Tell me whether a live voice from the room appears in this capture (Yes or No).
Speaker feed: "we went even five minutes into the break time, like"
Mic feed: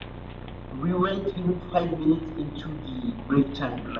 No